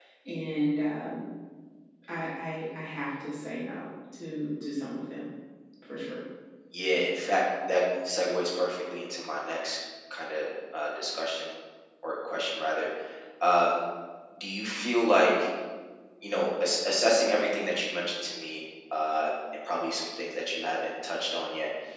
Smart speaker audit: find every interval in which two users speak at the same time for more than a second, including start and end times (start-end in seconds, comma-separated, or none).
none